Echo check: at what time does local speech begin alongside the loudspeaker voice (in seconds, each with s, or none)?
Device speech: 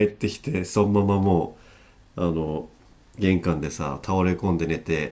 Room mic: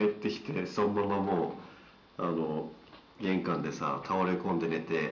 none